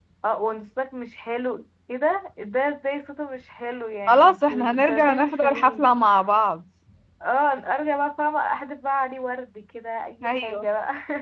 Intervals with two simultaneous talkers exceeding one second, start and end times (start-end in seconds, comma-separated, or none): 4.1-5.9